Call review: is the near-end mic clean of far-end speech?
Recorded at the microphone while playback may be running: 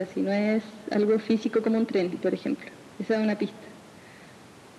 No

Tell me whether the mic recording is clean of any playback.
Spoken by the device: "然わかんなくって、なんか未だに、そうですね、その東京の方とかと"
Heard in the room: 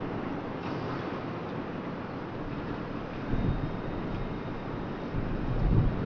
Yes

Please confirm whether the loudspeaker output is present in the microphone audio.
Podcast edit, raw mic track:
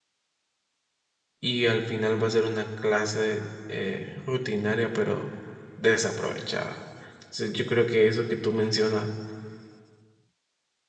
No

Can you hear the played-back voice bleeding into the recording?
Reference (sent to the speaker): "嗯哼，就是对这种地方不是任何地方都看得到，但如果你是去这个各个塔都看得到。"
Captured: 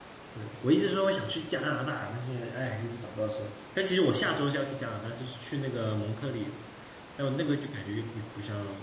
No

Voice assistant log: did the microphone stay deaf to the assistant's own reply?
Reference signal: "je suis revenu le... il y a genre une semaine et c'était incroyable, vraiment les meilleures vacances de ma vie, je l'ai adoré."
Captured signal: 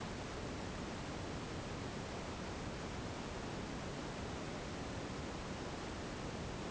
Yes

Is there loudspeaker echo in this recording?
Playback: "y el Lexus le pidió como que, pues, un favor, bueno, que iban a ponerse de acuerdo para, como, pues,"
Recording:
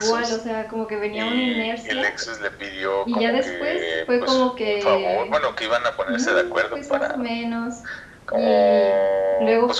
Yes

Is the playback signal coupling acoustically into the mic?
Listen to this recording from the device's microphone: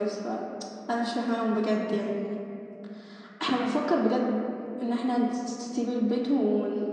Yes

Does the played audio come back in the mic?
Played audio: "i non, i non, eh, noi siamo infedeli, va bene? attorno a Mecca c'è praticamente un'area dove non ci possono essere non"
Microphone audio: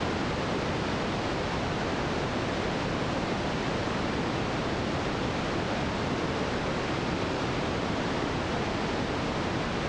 No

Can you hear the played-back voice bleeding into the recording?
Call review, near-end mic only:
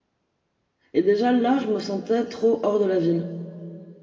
No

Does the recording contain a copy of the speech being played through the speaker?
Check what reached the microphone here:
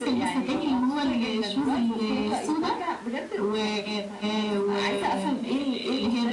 Yes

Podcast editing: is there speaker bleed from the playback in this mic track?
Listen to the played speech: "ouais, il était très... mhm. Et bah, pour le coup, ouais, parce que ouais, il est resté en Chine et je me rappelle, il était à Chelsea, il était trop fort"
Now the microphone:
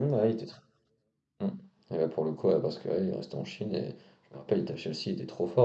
Yes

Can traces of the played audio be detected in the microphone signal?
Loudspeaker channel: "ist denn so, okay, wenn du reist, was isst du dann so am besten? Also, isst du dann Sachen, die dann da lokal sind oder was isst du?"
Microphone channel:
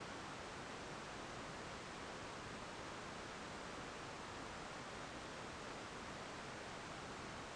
No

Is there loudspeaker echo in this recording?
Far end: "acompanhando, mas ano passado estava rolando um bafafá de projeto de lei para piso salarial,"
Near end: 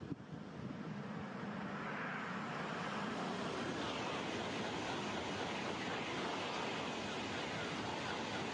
No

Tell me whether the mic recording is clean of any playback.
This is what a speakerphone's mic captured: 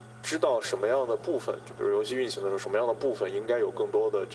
No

